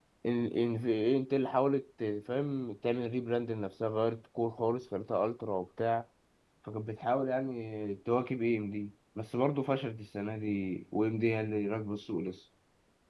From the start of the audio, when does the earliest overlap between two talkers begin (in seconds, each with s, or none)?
none